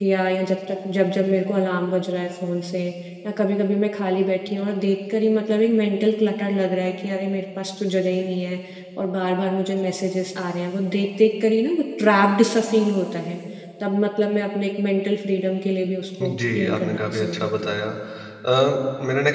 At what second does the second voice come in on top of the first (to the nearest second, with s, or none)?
16 s